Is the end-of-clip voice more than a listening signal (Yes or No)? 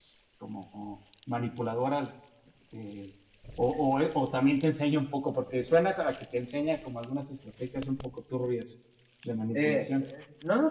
Yes